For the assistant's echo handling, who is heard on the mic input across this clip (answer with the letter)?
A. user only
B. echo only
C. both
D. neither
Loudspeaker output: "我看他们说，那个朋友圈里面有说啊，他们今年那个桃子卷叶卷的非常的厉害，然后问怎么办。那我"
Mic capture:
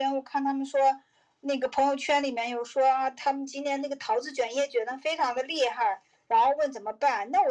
B